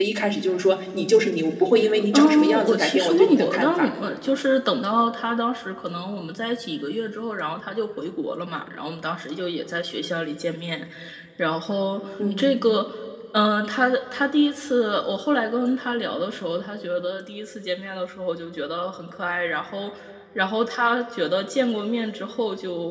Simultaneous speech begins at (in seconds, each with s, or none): 2.1 s